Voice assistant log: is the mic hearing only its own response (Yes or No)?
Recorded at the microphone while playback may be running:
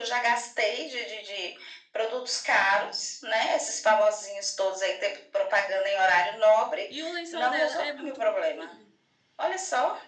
No